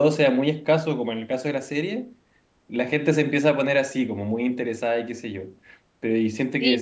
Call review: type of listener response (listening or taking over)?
taking over